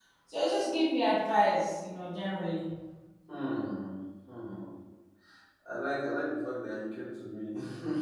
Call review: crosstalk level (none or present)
none